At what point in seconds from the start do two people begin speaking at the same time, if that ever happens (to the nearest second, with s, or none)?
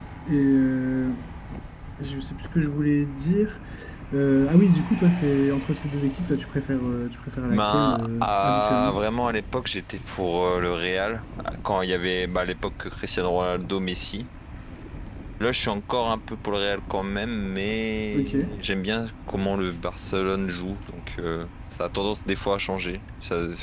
7 s